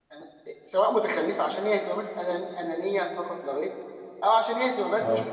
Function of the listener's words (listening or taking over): listening